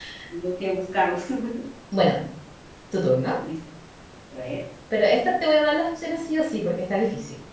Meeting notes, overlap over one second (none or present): none